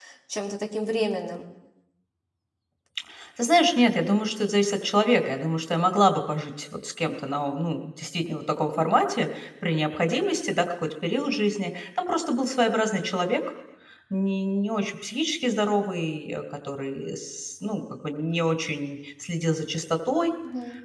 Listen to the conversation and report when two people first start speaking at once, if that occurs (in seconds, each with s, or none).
none